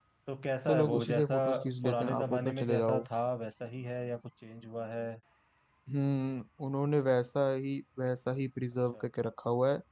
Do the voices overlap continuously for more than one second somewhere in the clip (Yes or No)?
Yes